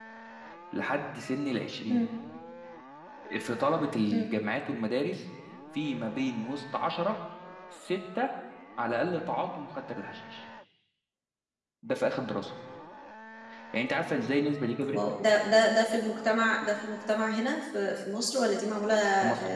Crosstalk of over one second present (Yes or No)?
No